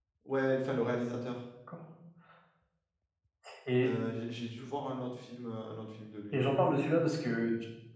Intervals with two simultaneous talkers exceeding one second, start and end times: none

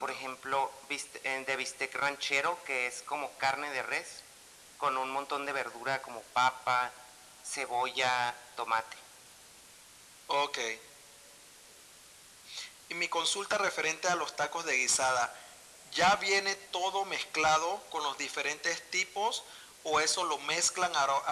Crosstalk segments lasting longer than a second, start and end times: none

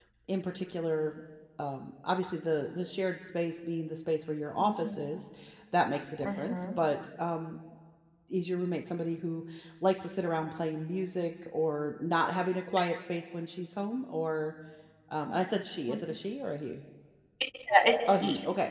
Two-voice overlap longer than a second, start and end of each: none

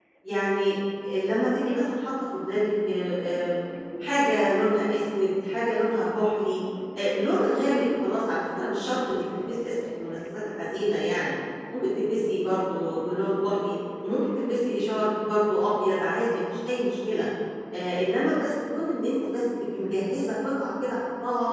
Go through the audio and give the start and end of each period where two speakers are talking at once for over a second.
none

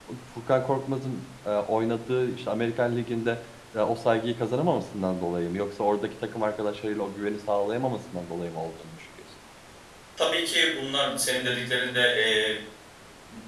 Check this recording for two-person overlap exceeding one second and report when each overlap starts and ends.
none

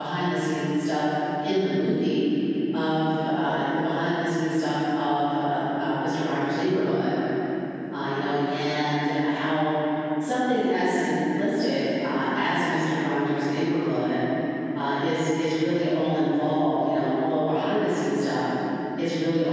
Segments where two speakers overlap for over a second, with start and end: none

